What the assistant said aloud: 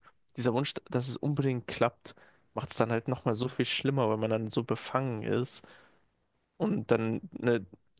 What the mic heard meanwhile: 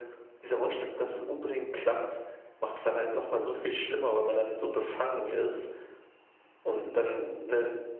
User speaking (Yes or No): No